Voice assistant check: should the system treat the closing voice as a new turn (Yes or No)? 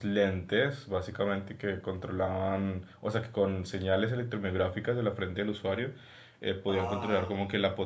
No